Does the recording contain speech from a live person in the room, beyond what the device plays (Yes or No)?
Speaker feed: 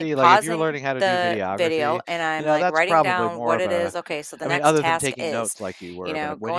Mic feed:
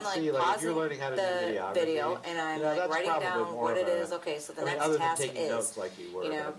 No